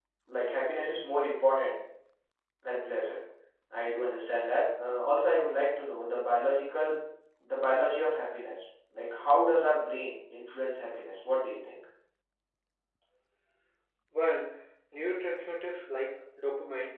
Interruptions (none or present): none